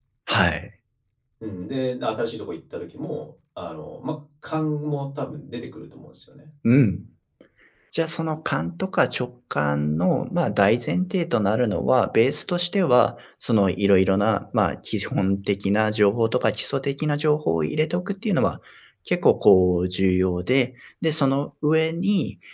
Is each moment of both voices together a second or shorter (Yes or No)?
Yes